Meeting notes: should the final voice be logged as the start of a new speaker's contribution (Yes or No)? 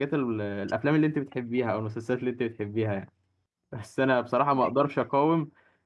No